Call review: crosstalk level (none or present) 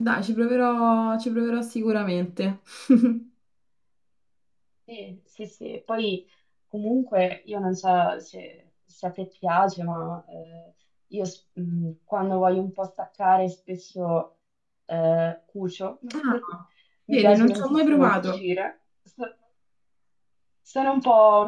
present